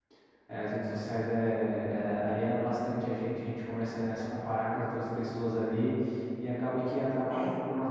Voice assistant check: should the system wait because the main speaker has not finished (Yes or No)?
Yes